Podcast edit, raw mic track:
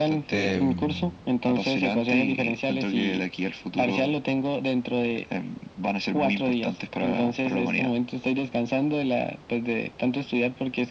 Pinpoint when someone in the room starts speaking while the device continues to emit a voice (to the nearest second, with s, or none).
0 s